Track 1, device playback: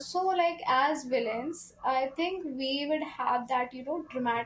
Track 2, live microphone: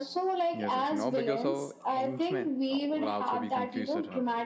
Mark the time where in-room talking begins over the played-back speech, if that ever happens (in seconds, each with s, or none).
0.5 s